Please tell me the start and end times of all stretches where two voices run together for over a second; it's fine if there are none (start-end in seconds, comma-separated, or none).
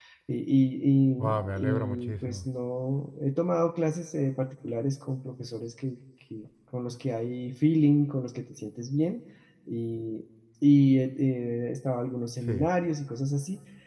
1.2-2.5